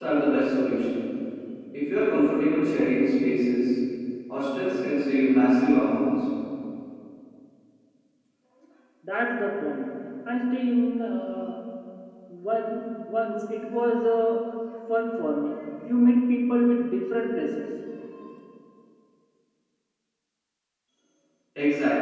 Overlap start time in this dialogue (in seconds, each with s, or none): none